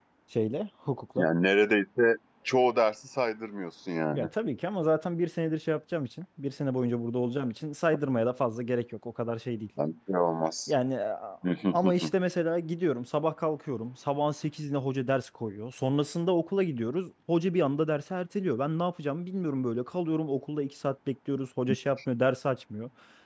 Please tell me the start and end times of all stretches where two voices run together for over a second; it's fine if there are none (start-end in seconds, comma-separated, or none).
none